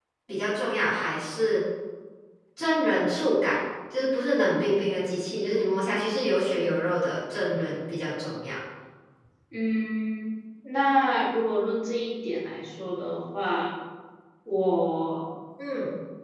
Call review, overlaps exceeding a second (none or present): none